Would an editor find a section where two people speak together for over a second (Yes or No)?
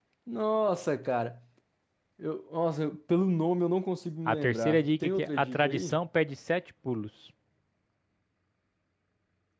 Yes